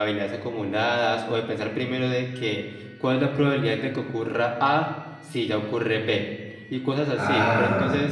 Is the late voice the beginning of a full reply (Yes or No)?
No